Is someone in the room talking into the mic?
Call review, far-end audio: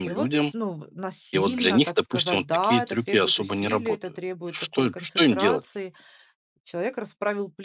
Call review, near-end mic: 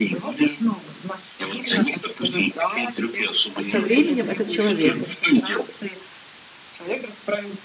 Yes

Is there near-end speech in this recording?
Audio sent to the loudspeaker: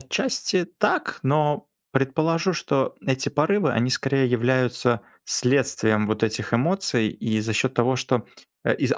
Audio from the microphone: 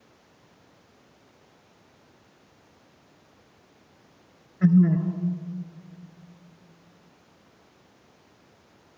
Yes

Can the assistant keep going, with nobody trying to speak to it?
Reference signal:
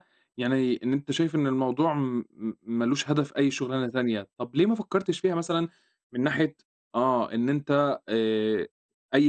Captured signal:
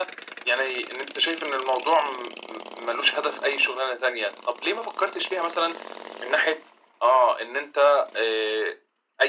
Yes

